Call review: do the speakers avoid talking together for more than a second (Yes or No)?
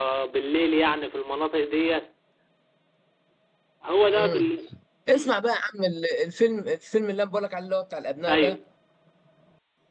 Yes